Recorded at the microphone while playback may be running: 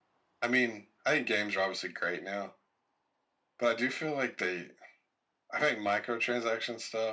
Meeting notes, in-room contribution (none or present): none